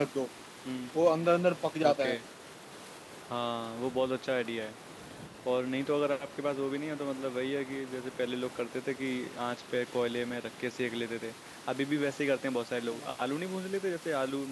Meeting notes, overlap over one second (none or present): none